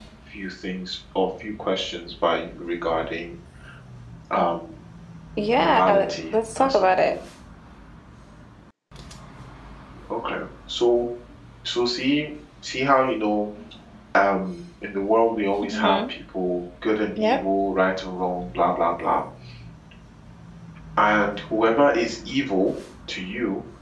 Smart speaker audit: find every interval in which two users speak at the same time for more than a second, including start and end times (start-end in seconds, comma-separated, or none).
5.5-7.1